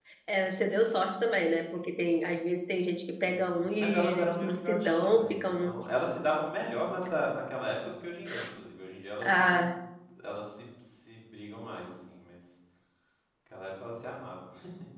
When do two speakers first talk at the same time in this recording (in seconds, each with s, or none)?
3.2 s